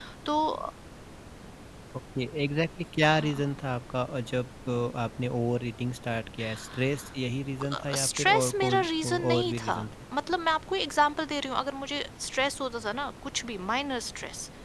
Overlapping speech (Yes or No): Yes